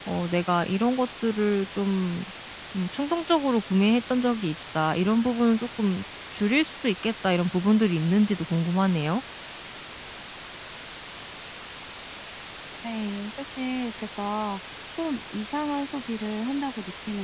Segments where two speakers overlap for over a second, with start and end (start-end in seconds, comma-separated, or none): none